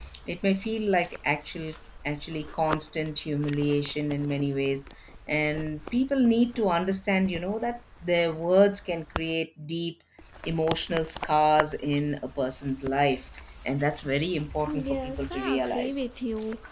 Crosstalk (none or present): present